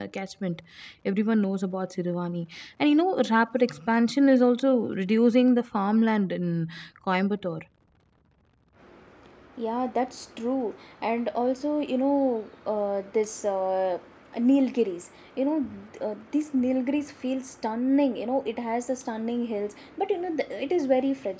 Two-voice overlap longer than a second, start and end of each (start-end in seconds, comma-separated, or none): none